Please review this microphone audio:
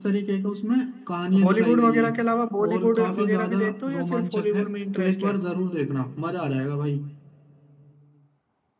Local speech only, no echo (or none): हॉलीवुड वगैरह के अलावा बॉलीवुड वगैरह भी देखते हो या सिर्फ हॉलीवुड में इंटरेस्ट है